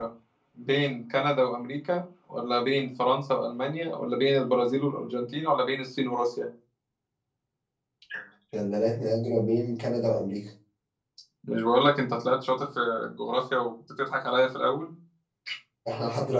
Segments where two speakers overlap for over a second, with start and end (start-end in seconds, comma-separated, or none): none